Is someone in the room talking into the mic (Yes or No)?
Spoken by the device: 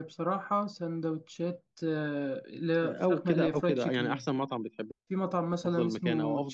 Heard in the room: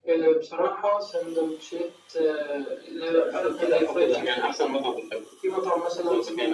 No